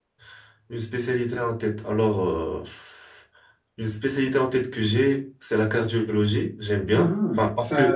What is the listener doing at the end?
taking over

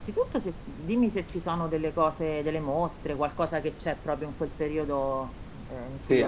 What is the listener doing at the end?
taking over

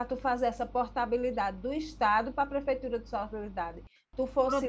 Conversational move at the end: taking over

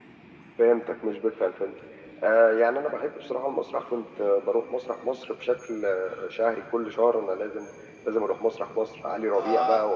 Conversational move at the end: listening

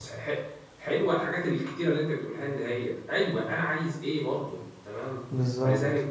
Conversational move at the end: listening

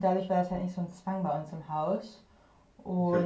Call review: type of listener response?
listening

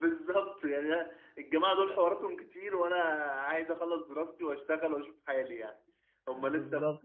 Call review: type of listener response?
listening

